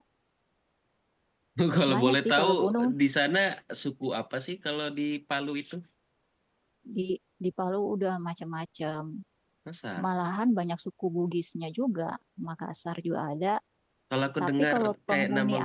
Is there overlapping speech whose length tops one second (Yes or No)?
Yes